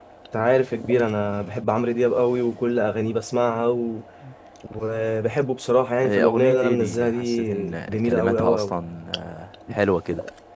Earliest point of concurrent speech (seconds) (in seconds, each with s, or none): 6.0 s